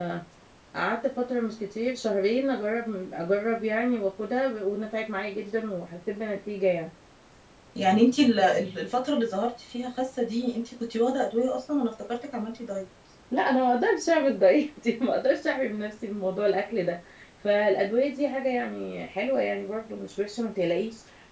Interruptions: none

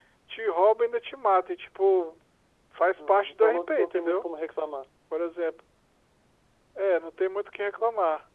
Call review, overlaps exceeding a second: present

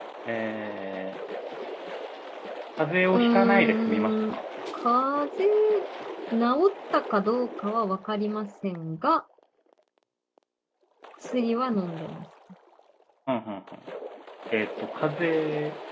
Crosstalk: present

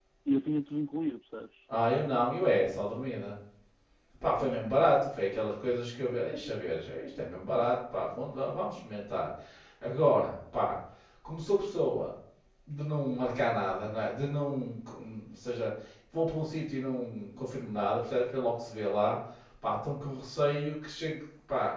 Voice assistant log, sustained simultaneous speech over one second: none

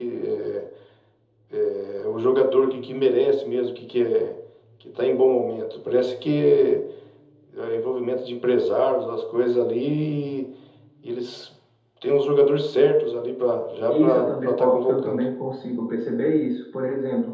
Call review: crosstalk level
present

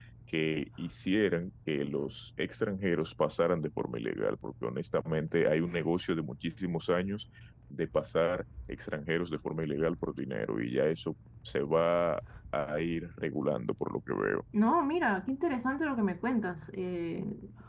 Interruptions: none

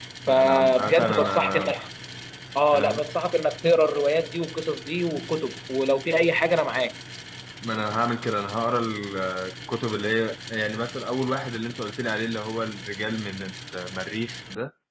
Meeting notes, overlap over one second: present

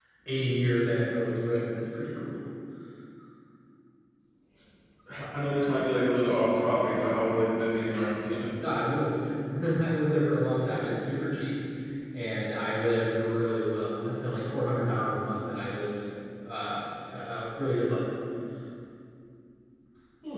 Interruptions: none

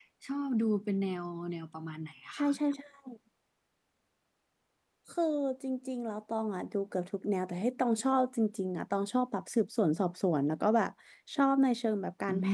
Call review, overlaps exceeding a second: none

